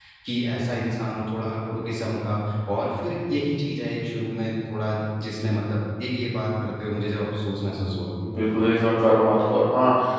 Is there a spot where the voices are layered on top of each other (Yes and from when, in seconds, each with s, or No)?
No